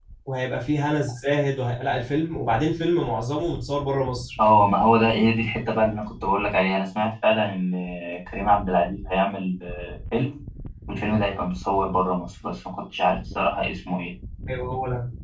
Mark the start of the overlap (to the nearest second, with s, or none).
none